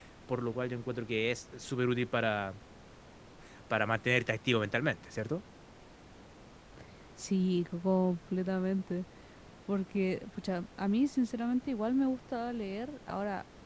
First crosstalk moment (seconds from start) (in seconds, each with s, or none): none